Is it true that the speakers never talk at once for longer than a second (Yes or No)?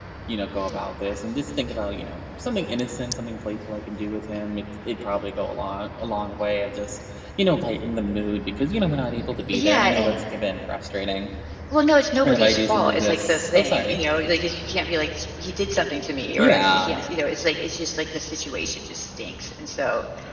No